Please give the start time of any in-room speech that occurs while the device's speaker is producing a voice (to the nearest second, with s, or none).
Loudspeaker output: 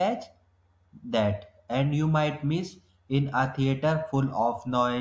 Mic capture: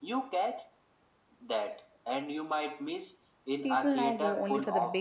4 s